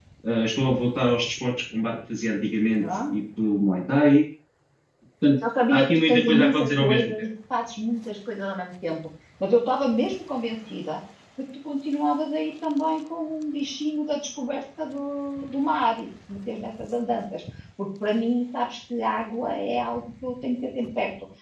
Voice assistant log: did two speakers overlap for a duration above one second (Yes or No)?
Yes